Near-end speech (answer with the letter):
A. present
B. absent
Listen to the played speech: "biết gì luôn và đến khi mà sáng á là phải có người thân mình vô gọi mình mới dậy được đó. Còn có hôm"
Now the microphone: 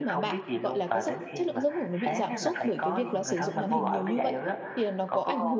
A